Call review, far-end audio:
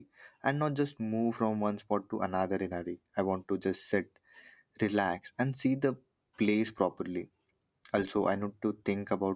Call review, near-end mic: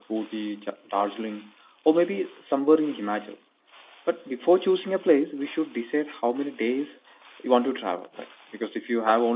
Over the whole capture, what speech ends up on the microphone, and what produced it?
user only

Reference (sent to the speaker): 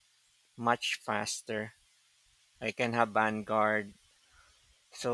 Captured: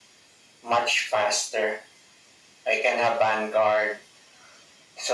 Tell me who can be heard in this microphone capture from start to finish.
echo only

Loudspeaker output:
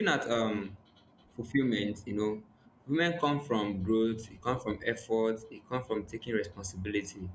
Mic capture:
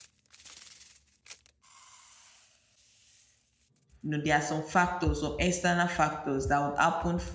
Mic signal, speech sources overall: user only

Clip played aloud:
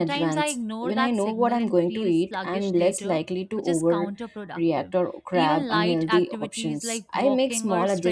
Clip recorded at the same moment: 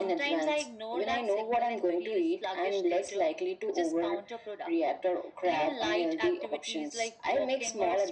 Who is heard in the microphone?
echo only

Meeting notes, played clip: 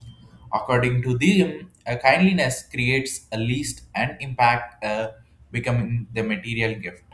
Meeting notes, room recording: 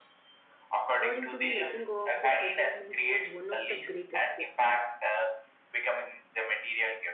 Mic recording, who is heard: both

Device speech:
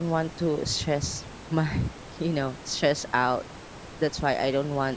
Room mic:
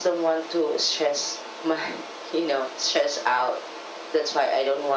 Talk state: echo only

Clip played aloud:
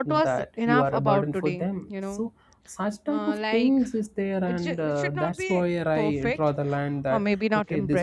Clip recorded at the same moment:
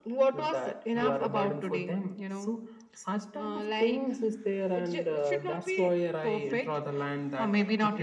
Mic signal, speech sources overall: echo only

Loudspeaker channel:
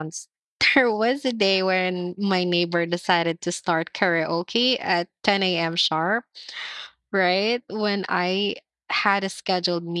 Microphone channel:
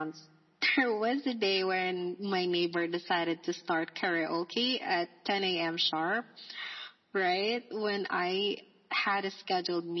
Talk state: echo only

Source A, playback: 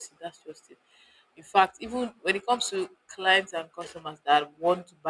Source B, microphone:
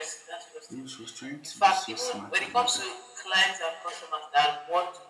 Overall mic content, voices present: both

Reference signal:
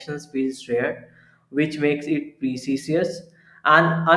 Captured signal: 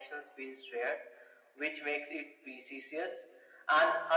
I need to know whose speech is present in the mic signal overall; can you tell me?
echo only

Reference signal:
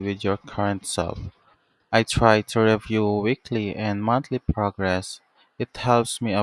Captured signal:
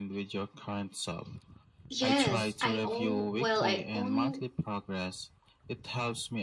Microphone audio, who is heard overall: both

